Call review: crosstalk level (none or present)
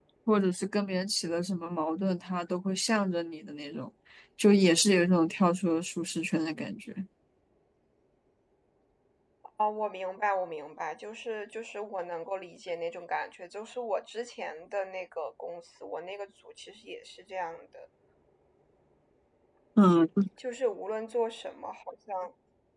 none